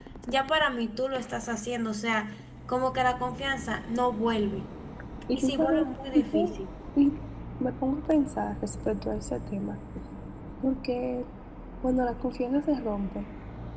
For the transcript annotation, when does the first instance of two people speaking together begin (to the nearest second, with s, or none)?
5 s